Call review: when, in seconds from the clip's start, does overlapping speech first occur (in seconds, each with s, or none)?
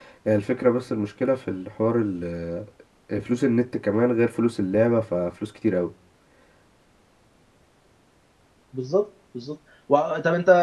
none